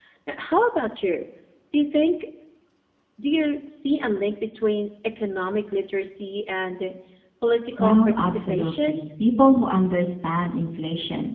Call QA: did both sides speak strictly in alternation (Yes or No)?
No